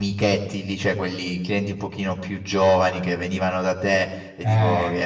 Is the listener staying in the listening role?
Yes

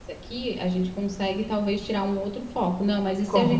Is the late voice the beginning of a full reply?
No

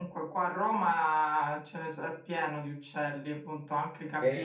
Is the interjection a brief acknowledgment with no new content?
Yes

